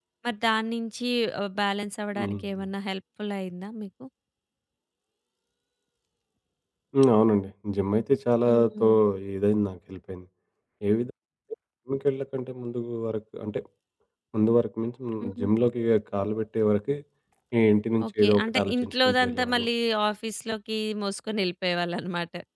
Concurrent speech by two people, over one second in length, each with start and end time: 18.0-19.7

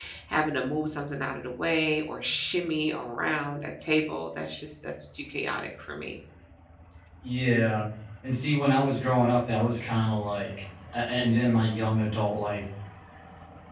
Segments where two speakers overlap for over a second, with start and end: none

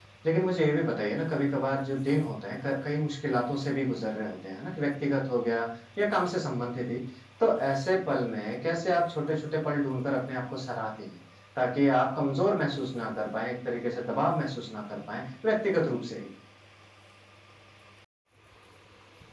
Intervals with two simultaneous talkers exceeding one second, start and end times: none

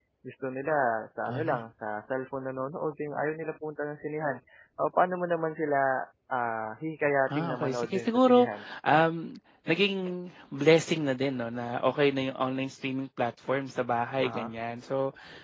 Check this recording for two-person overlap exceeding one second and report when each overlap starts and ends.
7.3-8.5

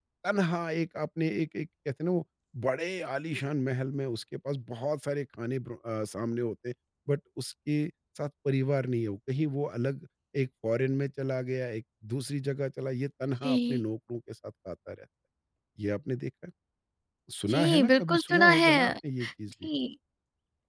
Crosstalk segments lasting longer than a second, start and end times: 17.5-18.7

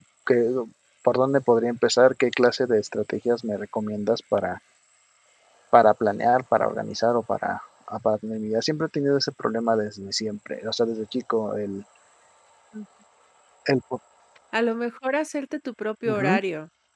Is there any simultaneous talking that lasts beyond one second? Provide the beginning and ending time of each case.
none

